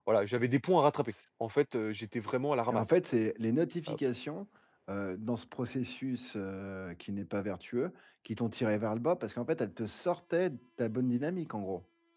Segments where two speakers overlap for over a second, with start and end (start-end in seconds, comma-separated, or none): none